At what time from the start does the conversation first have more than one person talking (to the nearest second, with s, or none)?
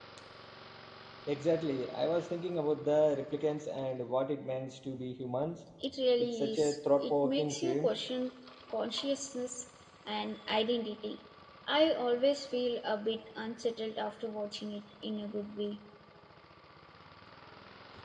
6 s